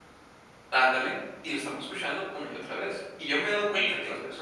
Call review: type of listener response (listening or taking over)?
listening